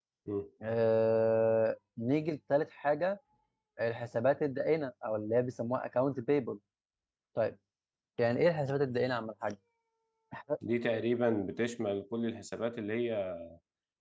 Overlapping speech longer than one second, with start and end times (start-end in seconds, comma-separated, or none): none